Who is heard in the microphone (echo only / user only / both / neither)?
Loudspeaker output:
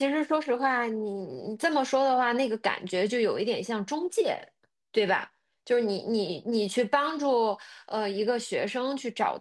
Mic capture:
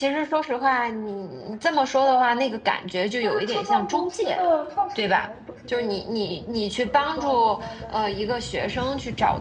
both